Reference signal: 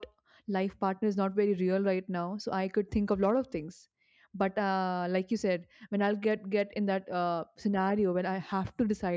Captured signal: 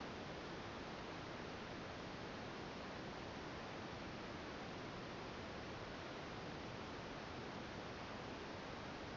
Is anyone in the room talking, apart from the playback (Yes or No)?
No